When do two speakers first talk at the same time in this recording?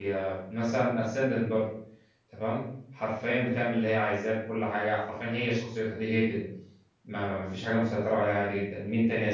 none

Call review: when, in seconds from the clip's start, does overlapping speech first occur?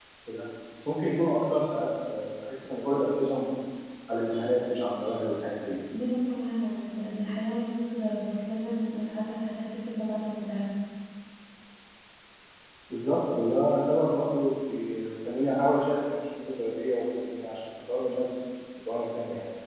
none

